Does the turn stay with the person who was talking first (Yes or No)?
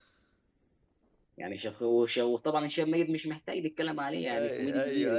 No